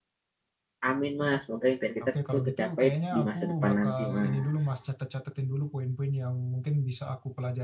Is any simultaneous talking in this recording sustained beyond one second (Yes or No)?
Yes